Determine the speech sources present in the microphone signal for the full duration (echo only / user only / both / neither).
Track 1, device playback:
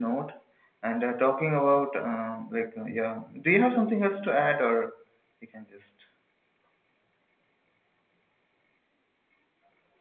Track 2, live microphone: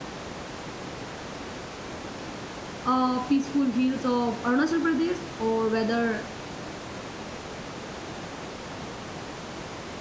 user only